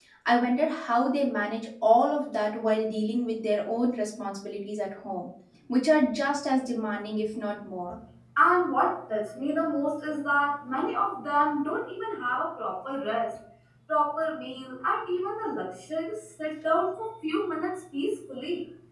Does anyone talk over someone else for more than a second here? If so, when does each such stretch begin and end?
none

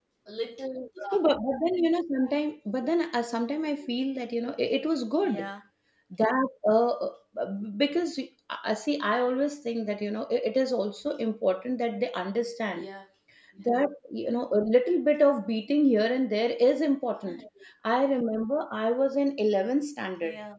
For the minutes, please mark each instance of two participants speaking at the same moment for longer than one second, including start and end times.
none

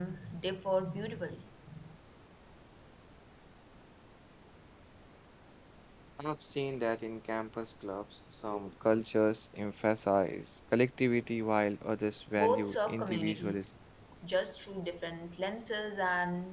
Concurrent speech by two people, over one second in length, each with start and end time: 12.3-13.7

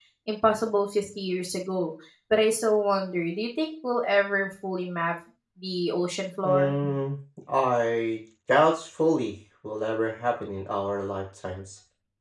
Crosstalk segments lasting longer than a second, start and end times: none

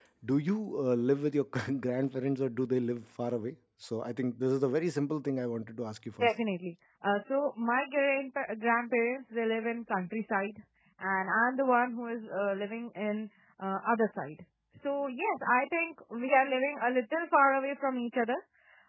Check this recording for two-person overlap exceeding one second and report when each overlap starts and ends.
none

